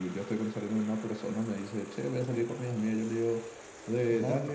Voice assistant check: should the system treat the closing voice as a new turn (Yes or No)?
No